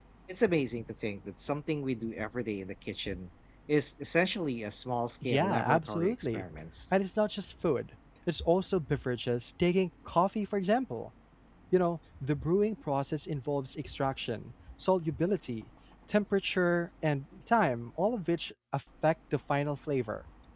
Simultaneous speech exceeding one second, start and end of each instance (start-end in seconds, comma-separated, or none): 5.2-6.4